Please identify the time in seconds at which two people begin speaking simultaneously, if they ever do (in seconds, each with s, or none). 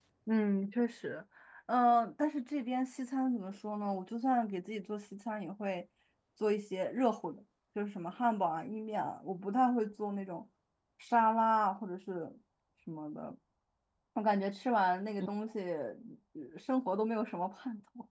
none